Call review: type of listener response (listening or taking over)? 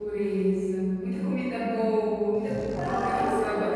listening